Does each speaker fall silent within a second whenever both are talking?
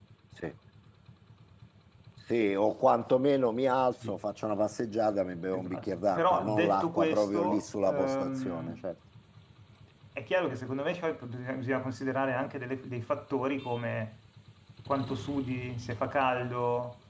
No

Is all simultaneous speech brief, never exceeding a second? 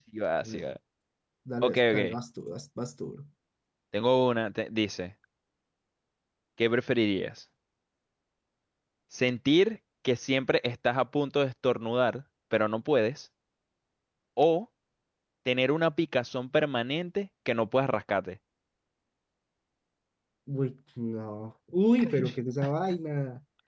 Yes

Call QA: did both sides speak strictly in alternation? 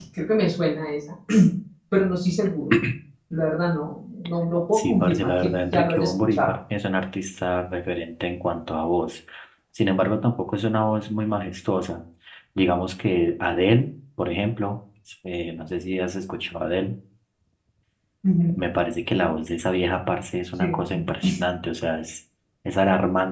No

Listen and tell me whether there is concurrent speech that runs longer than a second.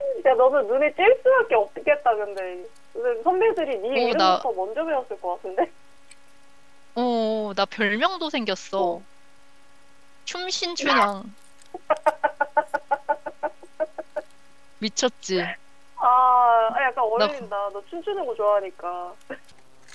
No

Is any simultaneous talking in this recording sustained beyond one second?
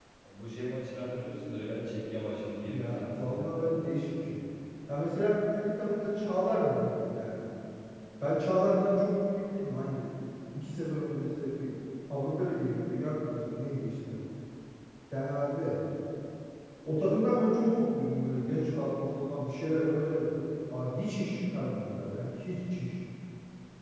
Yes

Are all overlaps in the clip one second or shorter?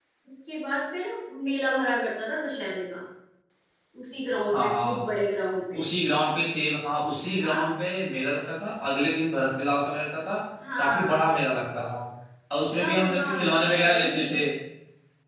No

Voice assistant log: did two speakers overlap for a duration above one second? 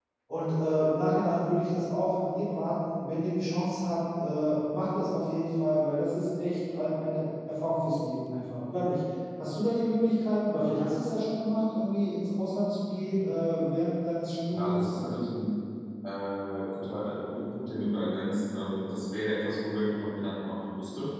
No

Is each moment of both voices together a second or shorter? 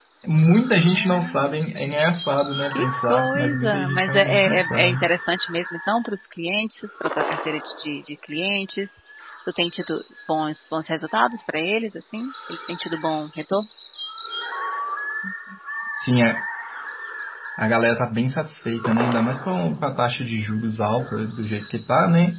No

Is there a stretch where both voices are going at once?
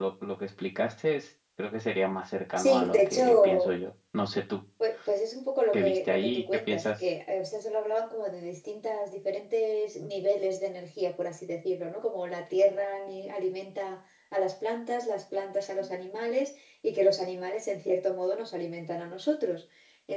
Yes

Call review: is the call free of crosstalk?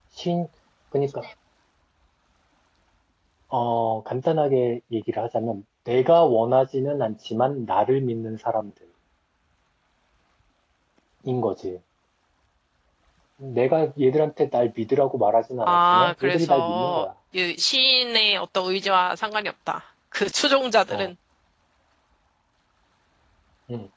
No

